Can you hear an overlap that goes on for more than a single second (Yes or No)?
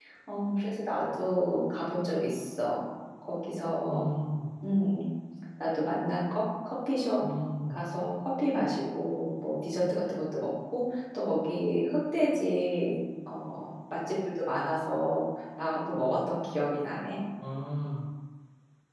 No